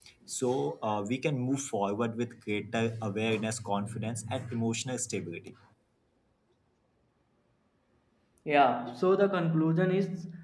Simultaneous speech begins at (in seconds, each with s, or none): none